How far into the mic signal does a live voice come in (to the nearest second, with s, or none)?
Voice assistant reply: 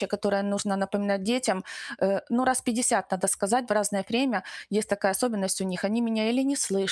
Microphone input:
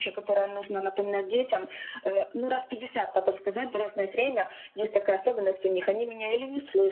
none